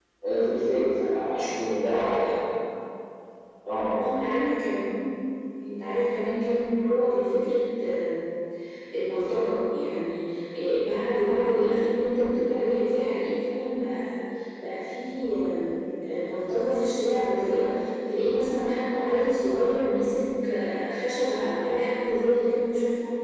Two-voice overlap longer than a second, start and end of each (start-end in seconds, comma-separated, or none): none